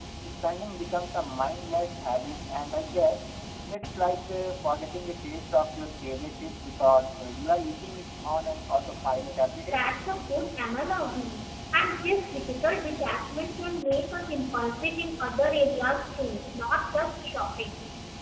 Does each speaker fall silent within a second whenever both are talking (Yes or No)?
Yes